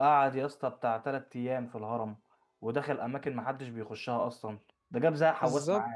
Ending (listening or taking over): taking over